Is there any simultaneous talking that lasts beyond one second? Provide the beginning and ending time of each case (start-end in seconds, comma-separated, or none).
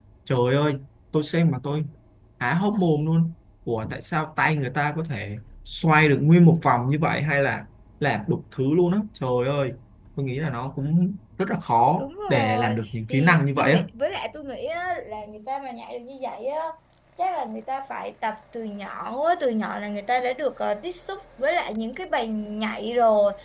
12.0-13.8